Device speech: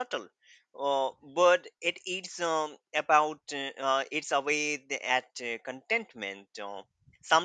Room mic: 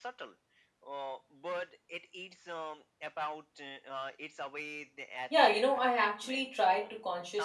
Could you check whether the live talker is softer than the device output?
No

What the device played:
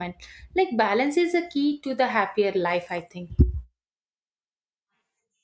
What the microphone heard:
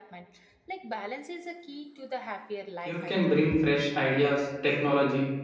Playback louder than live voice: No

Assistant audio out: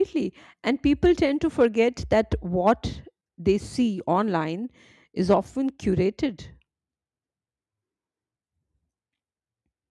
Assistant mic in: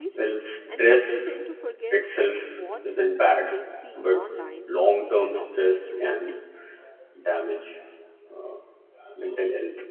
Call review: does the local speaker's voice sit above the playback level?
Yes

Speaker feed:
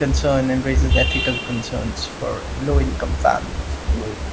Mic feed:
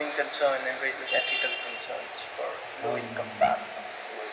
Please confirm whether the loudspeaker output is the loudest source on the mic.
Yes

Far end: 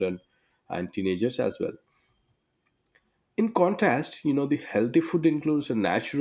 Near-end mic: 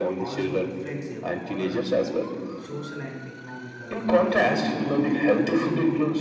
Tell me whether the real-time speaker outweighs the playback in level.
No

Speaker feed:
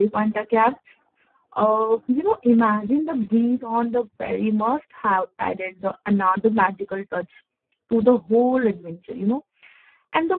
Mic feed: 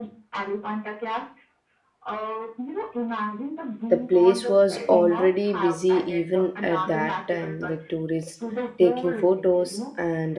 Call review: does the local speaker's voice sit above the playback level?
Yes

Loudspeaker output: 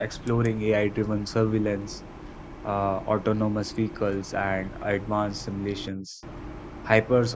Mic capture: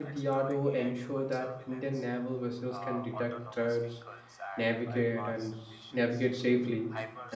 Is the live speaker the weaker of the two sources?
No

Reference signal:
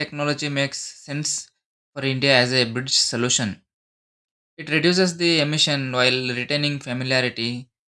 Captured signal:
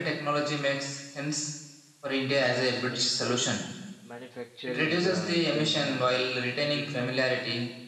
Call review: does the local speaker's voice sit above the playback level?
No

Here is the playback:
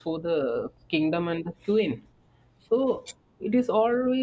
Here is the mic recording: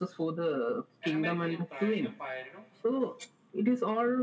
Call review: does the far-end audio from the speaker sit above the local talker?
Yes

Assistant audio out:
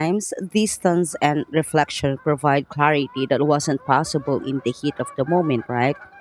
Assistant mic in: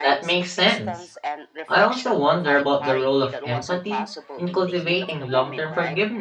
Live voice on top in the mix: Yes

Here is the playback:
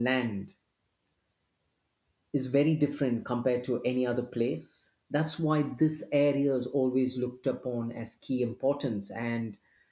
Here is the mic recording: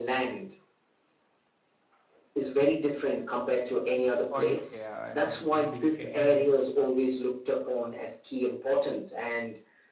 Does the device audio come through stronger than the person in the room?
Yes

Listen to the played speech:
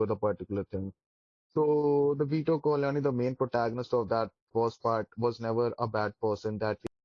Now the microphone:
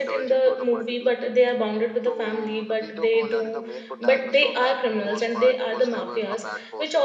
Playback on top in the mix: No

